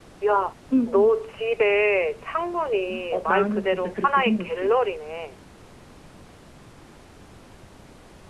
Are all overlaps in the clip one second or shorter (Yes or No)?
No